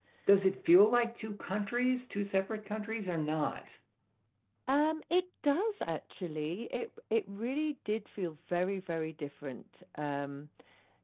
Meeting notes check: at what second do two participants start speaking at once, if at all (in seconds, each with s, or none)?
none